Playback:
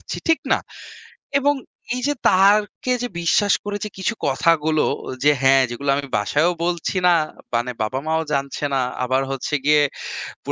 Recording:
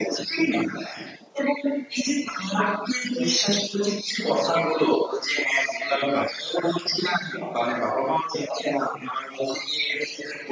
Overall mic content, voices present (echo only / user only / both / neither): echo only